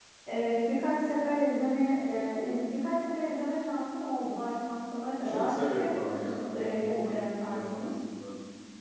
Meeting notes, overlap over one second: present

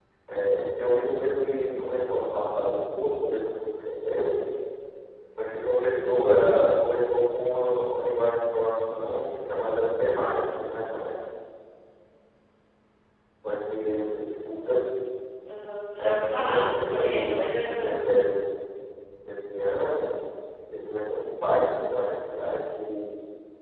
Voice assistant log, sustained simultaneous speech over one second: present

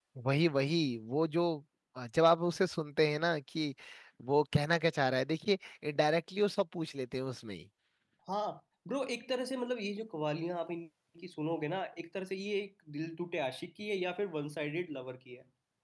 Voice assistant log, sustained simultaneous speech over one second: none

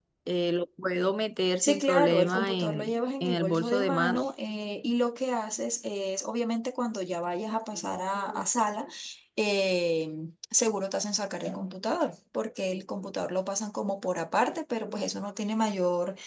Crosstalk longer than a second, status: present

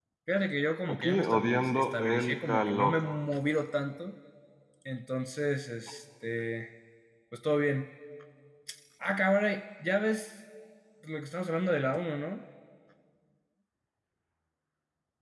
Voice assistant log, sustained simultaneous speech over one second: present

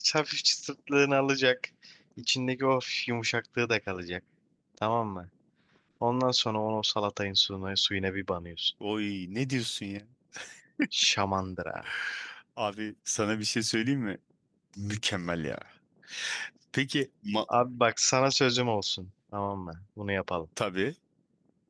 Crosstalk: none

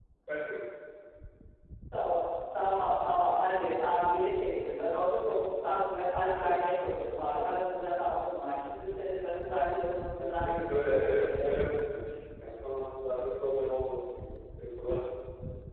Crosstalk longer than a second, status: present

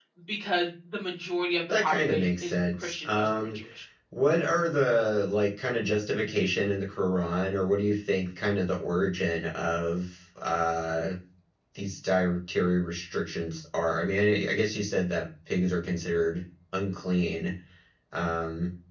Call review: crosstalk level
present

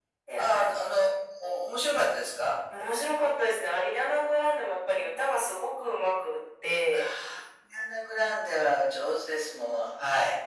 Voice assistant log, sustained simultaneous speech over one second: none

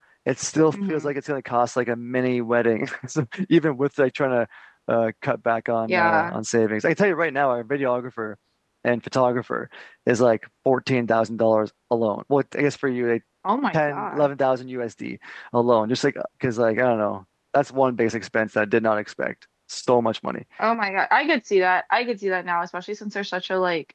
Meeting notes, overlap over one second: none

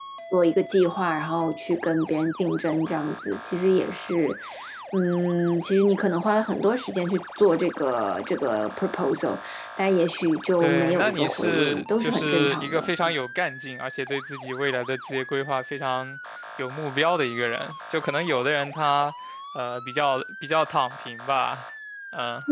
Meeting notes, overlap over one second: present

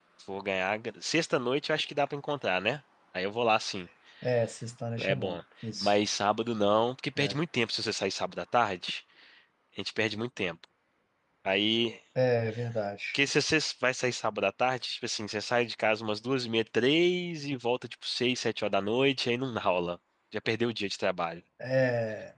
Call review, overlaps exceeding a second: none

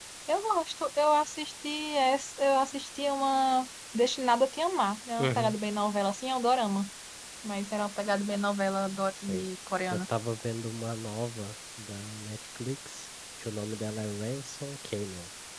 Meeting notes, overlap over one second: none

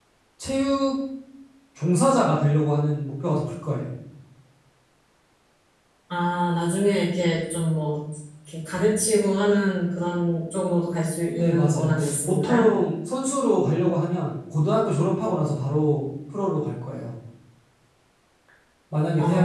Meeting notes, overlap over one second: present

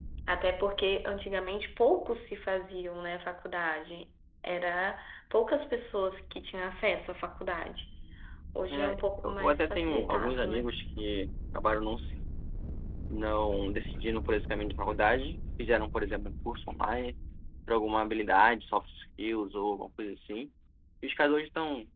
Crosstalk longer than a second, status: present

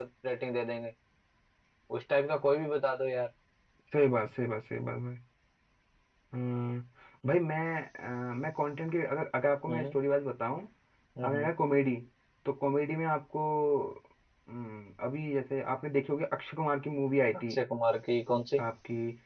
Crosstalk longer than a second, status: none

